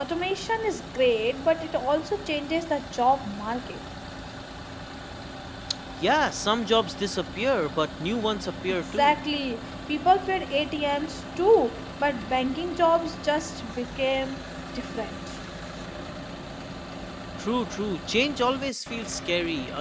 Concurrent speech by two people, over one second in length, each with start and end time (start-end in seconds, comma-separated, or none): none